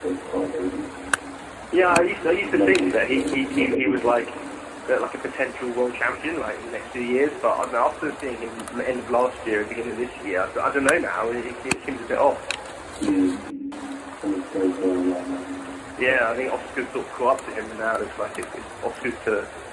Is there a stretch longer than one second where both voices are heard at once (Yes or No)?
Yes